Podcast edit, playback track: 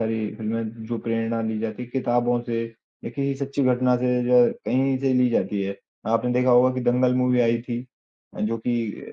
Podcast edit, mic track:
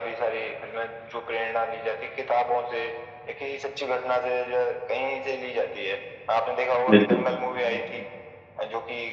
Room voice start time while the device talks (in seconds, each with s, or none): 6.9 s